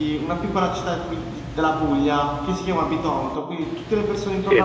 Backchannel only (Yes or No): Yes